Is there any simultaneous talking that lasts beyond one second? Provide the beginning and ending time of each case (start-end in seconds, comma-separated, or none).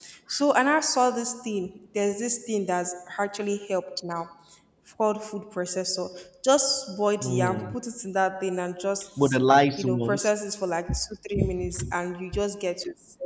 none